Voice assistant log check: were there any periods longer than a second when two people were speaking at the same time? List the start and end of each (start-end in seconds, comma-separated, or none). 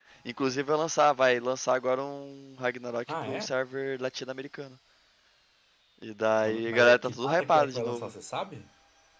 6.6-8.1